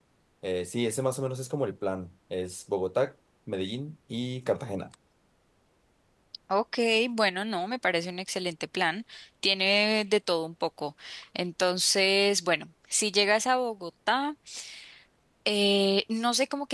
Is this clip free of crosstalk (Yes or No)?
Yes